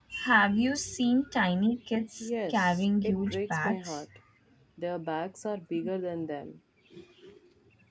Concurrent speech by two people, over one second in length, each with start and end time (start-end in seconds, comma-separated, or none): 2.2-4.0